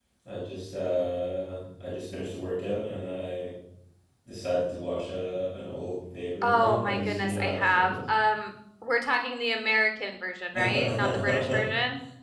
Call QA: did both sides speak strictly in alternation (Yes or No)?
No